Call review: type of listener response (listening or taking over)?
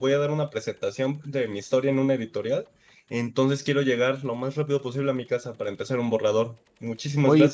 taking over